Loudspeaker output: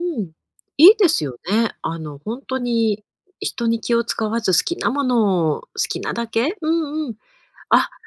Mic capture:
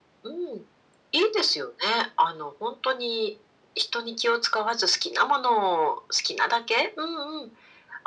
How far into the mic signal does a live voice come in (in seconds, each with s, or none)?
none